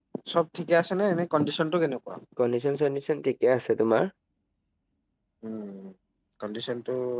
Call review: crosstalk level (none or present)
none